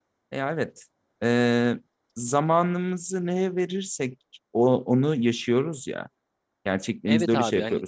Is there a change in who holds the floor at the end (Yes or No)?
Yes